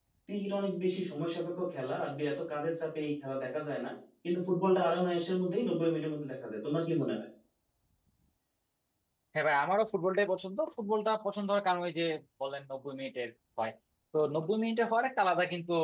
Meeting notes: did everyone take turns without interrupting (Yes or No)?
Yes